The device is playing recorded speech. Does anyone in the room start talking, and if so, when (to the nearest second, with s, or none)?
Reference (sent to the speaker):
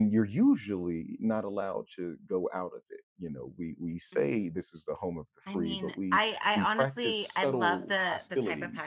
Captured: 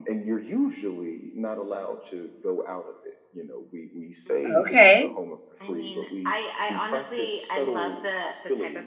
4 s